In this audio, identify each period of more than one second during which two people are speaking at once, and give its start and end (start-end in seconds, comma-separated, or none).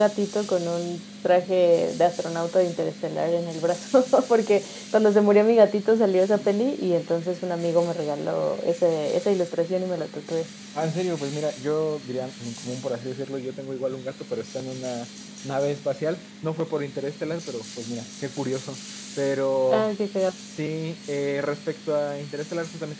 none